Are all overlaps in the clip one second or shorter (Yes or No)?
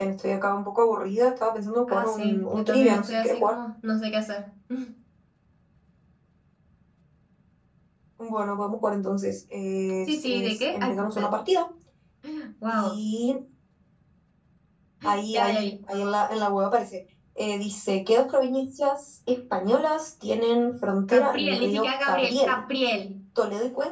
No